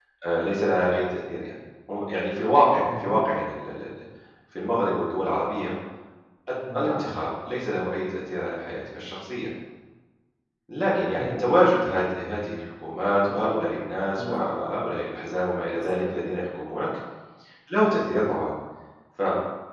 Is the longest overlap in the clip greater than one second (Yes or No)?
No